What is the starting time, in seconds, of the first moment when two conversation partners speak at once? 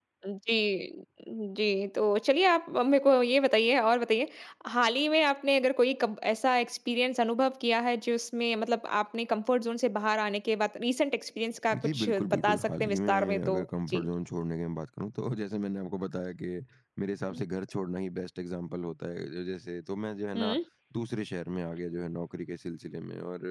12 s

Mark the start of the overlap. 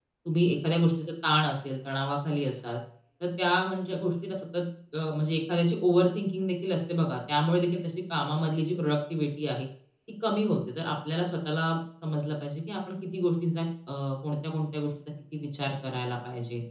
none

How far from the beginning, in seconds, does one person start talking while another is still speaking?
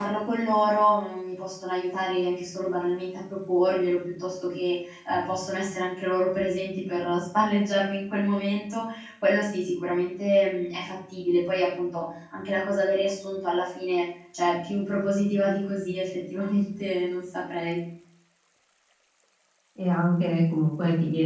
none

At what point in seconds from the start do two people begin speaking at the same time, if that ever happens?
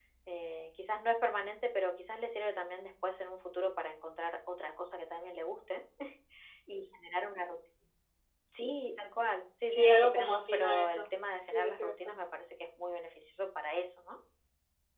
10 s

